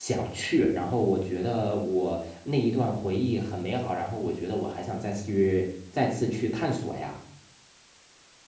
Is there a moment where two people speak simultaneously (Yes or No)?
No